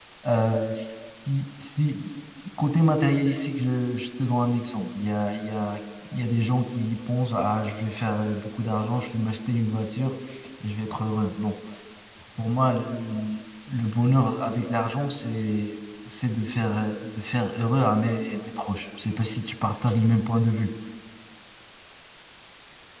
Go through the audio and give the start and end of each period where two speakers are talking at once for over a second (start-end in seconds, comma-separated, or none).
none